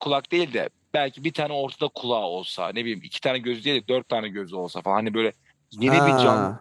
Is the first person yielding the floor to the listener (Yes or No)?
No